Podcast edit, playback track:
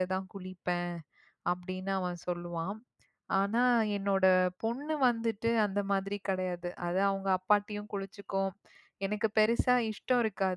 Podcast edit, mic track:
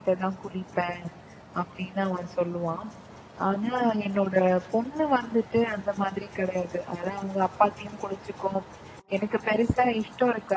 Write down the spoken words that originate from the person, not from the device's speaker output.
none

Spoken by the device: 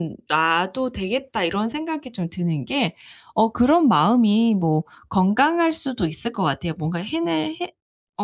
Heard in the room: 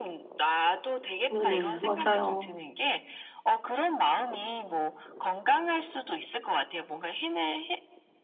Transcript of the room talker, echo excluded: 네네. 맞아요.

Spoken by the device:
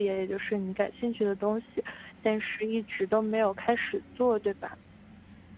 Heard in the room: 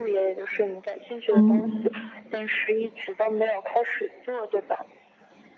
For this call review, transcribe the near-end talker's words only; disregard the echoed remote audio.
嗯，

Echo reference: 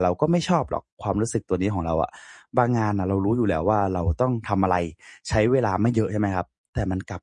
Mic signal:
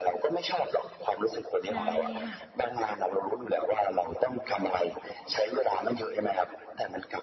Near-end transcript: ได้เลยค่ะ

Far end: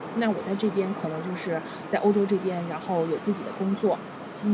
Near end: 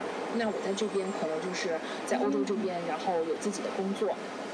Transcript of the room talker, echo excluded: 嗯，

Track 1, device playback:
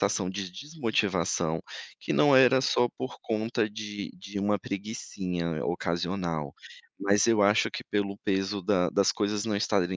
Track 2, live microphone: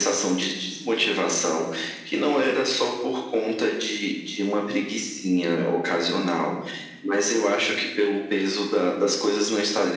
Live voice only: none

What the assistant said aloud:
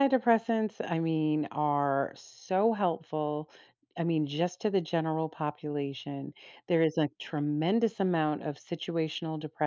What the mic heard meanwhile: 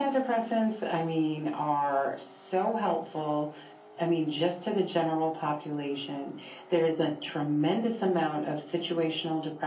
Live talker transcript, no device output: none

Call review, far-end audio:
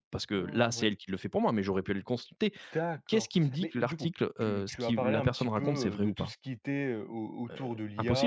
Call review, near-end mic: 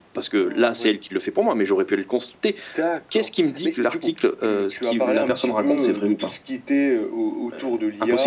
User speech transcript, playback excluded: none

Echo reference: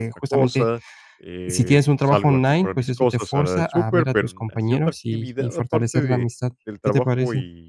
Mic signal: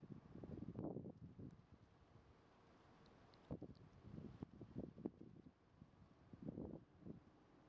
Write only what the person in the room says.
none

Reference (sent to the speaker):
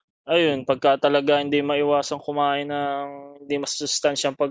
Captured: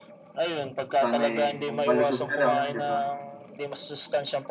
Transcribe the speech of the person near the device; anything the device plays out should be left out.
sana, eh, kung malusog ka lang, 'di ba?

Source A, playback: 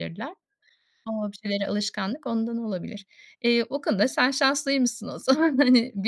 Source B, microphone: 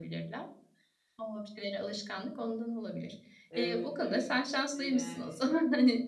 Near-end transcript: Evet, evet. Eee, yani

